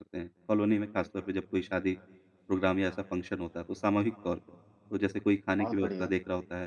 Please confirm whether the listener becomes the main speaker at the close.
No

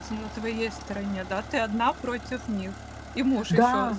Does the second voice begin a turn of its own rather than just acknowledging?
Yes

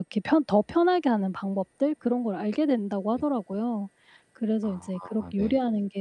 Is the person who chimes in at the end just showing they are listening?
Yes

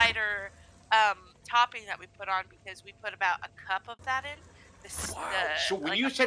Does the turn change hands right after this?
Yes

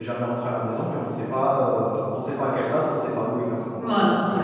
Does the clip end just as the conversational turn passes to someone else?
Yes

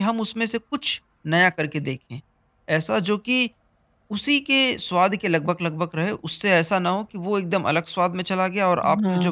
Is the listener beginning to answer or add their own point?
Yes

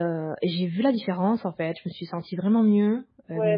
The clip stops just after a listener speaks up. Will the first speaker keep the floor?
No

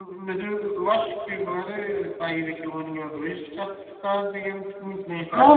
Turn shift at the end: Yes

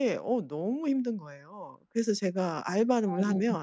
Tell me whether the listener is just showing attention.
Yes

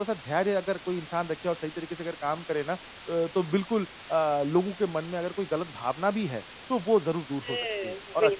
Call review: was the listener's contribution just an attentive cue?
No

